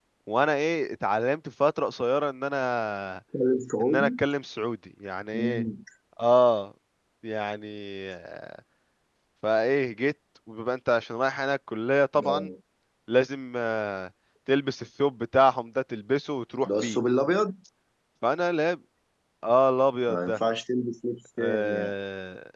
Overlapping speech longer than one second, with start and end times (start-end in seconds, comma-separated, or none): none